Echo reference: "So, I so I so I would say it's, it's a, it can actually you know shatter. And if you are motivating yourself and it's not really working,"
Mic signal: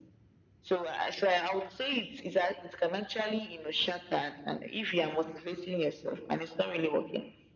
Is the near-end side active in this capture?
No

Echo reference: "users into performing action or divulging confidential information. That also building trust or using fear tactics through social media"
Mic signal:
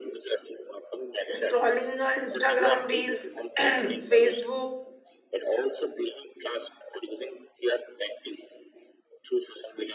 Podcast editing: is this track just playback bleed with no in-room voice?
No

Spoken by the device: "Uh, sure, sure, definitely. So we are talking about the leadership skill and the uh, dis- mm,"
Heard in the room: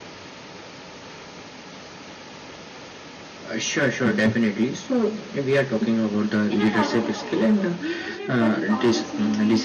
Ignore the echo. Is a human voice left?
Yes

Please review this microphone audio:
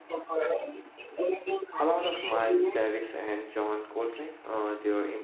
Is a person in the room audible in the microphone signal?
Yes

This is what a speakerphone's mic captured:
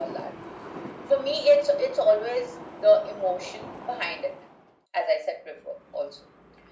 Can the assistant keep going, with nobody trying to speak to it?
Yes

